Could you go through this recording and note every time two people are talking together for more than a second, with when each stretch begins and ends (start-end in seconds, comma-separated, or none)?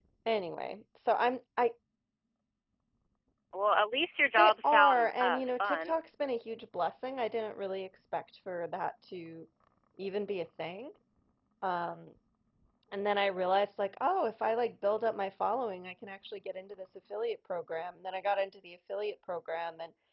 4.4-5.9